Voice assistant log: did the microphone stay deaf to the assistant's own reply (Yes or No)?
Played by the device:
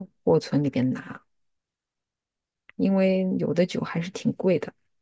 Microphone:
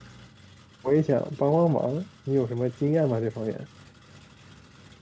Yes